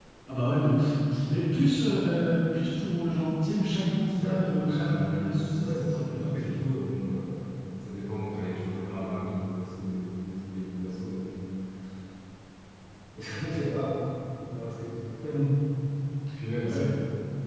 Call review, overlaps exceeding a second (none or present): present